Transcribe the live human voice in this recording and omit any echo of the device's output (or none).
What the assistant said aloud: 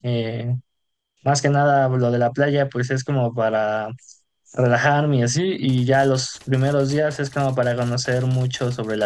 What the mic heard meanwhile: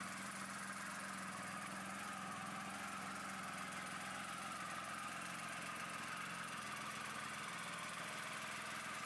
none